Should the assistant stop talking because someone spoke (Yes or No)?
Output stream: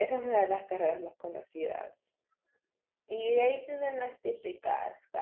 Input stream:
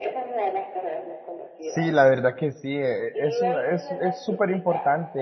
Yes